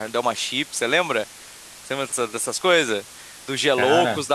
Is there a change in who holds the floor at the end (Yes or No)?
No